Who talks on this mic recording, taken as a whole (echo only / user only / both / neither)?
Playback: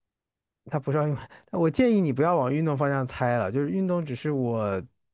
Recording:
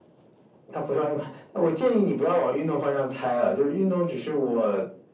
echo only